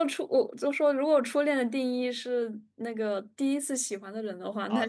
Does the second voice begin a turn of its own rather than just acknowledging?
Yes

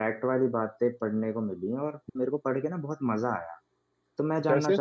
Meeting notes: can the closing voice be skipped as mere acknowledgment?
Yes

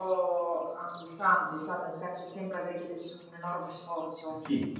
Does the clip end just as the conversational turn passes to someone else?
Yes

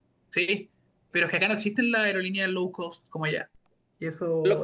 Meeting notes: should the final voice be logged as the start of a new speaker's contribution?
Yes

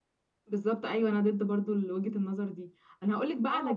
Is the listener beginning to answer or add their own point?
No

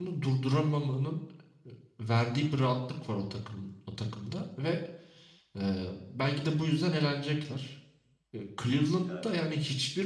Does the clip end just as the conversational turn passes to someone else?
No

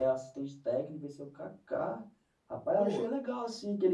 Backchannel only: Yes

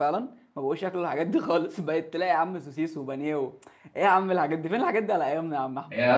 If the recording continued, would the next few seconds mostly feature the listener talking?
Yes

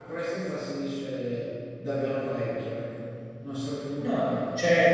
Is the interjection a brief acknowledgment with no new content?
No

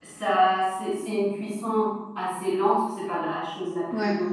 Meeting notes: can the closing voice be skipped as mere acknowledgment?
Yes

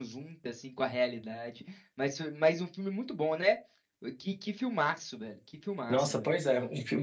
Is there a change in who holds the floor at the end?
Yes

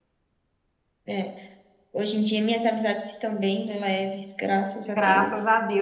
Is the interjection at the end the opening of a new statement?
Yes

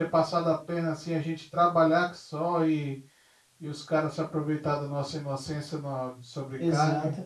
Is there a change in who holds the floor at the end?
Yes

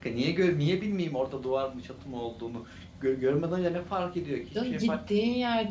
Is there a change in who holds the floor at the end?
Yes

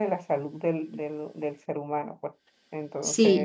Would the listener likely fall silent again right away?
No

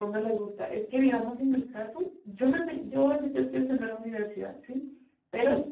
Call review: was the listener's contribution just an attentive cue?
Yes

